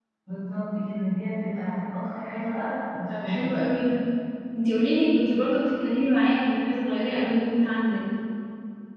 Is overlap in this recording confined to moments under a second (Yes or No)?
Yes